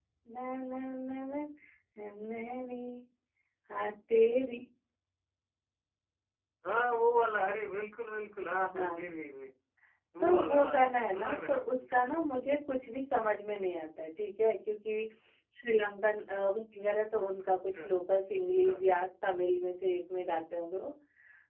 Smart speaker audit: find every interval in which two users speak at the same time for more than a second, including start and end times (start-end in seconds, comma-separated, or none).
10.2-11.8